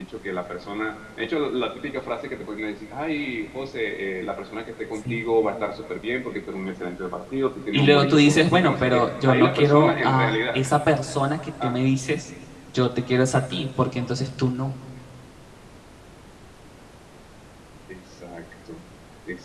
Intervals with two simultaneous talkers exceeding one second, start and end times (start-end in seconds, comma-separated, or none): 7.7-10.6